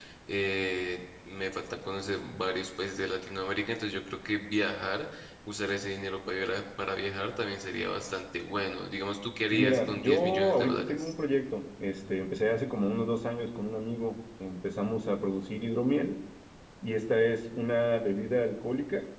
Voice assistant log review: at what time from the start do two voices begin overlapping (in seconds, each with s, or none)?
9.5 s